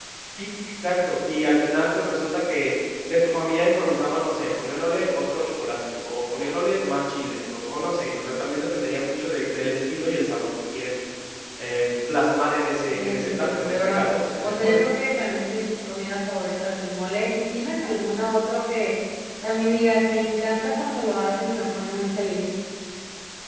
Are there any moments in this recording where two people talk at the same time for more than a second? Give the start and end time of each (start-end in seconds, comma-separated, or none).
12.8-14.0